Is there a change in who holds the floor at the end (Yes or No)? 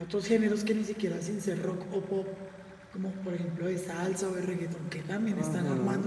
Yes